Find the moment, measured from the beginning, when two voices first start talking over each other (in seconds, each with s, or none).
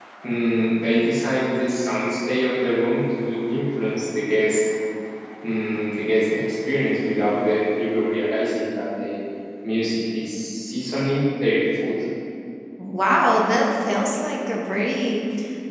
none